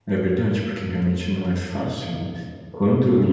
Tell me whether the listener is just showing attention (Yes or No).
Yes